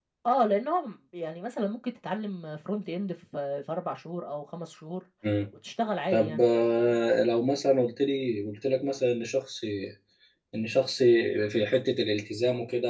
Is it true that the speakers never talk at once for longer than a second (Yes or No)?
Yes